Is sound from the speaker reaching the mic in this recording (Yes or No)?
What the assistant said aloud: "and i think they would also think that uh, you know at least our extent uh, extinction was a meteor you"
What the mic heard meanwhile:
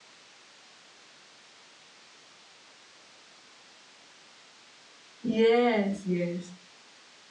No